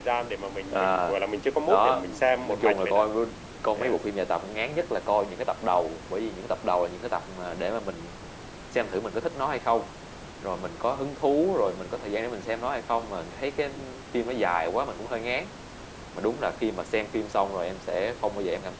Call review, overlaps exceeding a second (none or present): present